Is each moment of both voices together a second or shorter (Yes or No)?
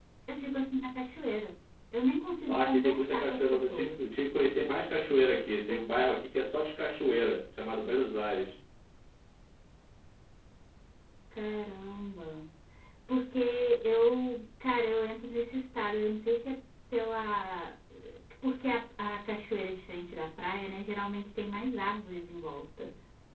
No